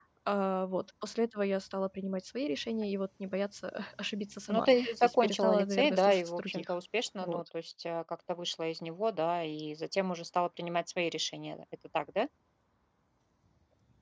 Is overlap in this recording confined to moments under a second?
No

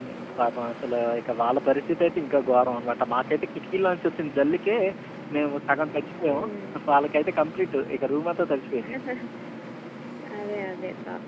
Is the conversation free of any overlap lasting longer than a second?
Yes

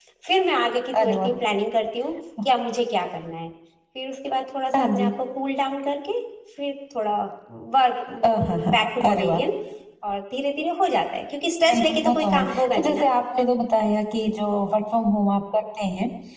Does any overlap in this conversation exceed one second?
Yes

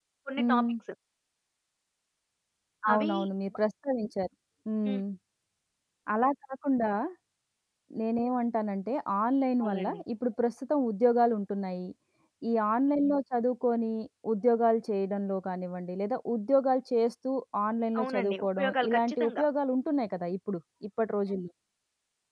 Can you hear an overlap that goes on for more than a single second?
Yes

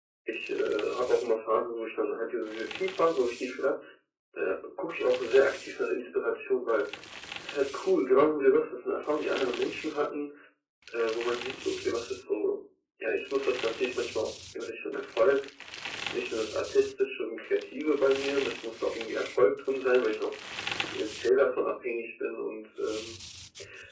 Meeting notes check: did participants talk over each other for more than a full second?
No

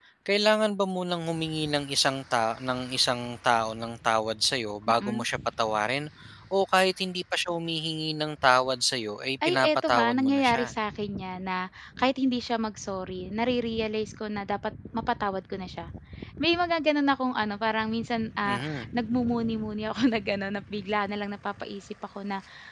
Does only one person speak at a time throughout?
No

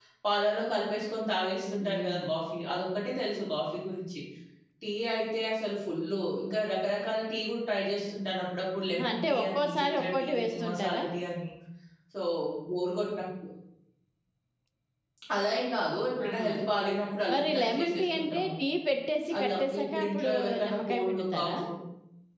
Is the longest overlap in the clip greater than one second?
Yes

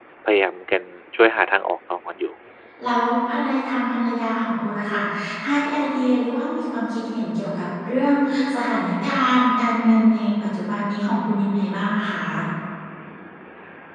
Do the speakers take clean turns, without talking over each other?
Yes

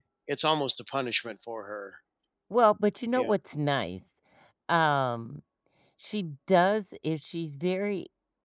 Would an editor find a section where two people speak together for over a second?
No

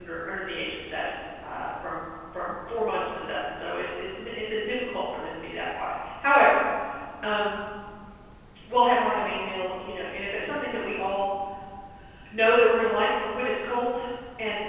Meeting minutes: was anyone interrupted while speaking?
No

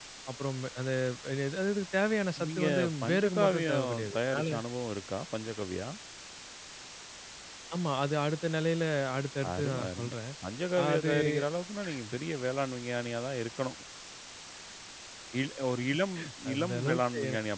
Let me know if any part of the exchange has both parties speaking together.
Yes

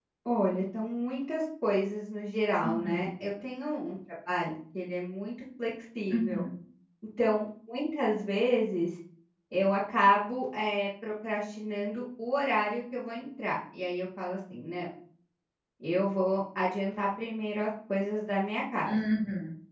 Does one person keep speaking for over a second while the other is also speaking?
No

